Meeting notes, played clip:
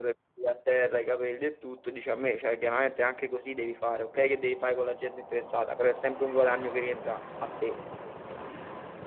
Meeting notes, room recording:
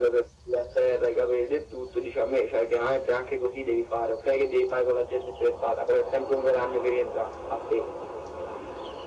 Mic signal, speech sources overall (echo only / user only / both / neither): echo only